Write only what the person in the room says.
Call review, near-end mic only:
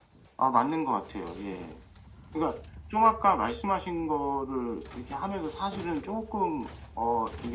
none

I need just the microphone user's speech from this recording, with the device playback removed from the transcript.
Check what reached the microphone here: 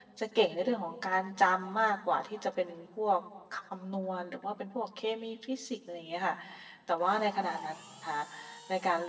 none

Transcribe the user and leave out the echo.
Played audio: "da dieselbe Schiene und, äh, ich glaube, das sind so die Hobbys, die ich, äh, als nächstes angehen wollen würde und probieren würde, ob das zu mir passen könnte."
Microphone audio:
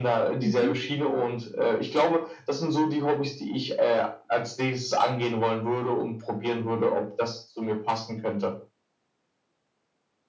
mhm,

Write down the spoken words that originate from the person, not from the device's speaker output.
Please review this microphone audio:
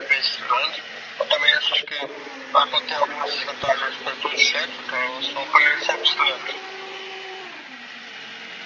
none

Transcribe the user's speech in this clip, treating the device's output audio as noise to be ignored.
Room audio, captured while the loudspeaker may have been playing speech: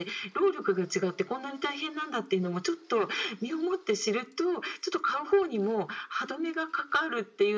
none

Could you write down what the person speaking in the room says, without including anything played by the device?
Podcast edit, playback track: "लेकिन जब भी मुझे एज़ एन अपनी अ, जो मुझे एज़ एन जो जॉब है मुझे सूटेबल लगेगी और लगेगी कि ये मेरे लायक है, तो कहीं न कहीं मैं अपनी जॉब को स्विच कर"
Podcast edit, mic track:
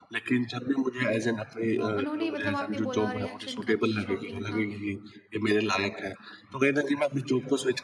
तो उन्होंने मतलब आपने बोला रिएक्शन काफ़ी शॉकिंग था

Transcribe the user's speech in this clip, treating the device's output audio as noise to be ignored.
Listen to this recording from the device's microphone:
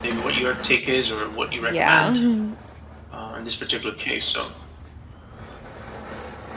Yeah. Mhm.

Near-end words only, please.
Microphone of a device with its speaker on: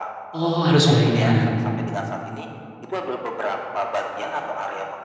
Oh harus banyak,

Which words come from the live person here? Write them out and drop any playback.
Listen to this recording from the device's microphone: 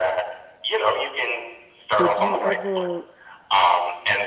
Did you Mhm. ever

